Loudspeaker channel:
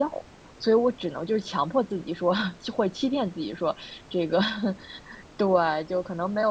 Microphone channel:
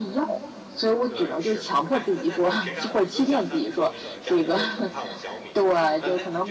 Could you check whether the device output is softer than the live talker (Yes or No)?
No